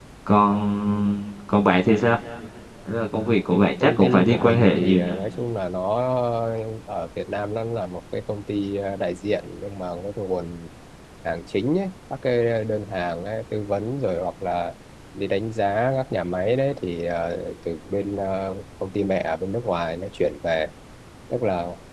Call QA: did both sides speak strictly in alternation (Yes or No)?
No